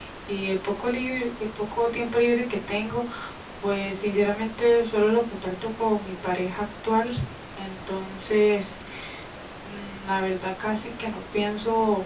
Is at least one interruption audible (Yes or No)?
No